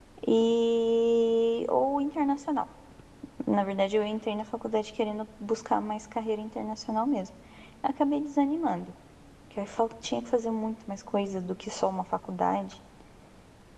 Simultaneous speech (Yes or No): No